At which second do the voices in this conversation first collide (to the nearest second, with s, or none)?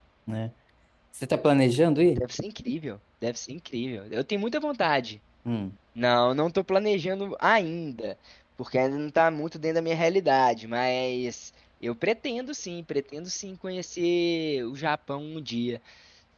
none